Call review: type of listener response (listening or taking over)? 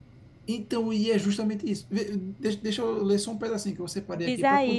taking over